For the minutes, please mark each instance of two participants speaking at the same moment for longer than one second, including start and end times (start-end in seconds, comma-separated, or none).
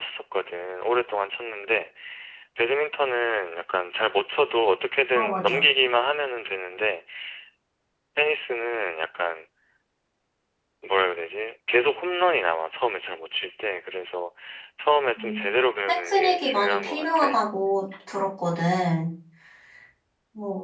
15.9-17.4